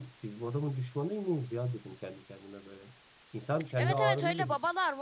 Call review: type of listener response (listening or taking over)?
taking over